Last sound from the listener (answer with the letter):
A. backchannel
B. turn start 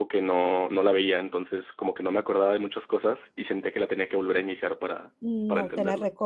B